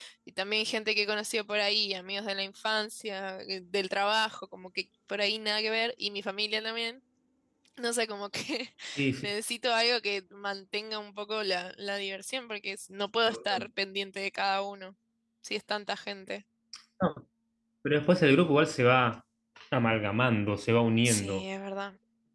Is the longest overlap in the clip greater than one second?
No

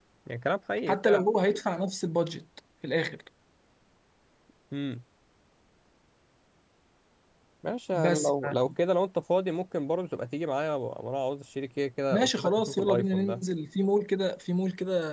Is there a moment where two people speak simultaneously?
Yes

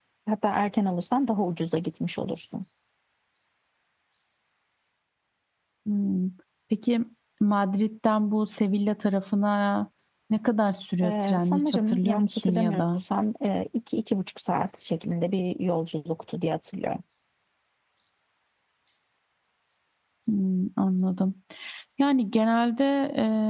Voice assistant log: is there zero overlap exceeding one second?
No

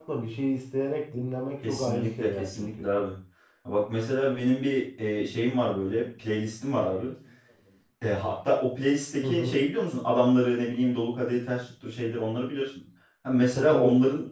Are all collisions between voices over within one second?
No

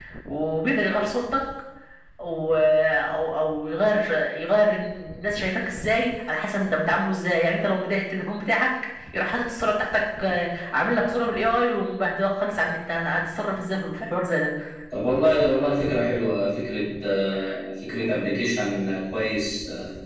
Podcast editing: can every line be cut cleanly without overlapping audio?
Yes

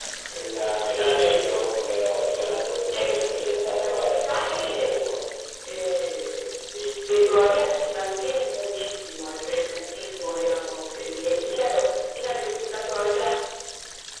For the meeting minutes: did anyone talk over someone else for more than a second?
Yes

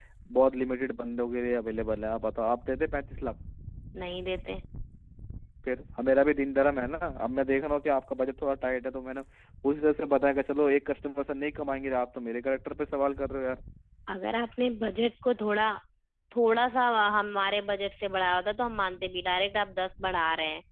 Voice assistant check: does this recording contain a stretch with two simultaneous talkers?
No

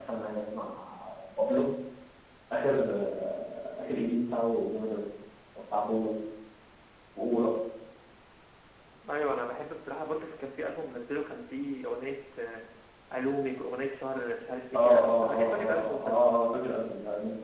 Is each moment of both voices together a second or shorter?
No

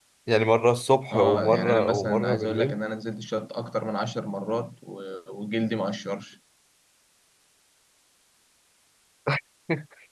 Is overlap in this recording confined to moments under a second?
No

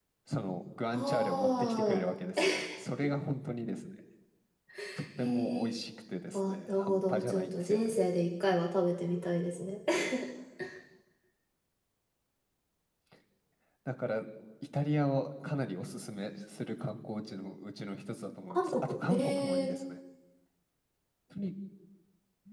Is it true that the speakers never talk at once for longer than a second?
No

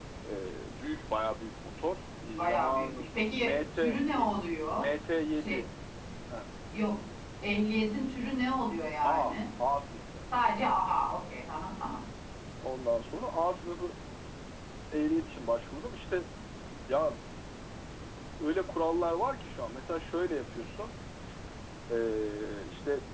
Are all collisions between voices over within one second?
No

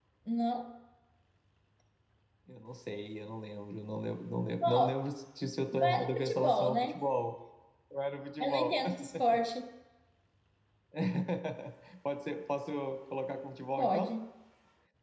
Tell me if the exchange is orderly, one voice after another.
No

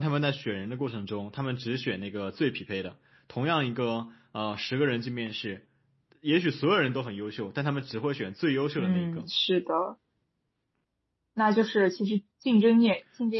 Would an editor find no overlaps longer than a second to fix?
Yes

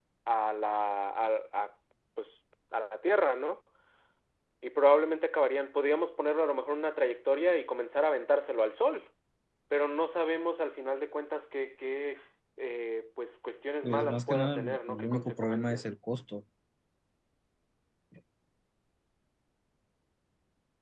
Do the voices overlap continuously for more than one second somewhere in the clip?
Yes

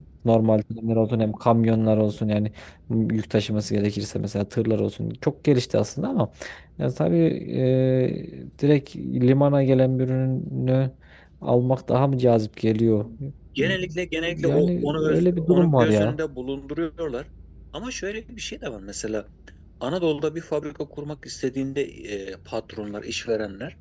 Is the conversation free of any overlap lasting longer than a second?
No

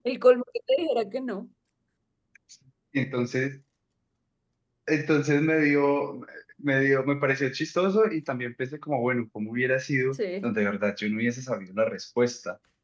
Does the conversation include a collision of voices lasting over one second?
No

